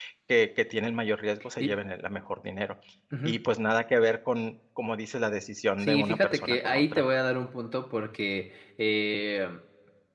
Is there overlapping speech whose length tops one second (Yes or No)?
Yes